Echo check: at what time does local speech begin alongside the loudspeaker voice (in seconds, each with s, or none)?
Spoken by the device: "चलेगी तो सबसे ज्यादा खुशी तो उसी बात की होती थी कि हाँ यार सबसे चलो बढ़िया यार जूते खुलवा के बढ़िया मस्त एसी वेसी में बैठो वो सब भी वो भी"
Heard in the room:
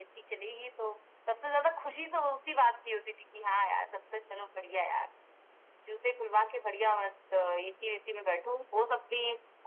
none